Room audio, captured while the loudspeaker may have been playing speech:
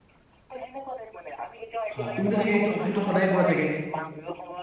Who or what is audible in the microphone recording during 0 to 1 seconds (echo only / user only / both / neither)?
echo only